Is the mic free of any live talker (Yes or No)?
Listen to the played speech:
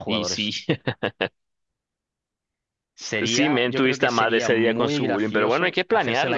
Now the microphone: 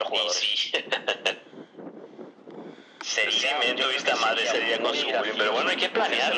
Yes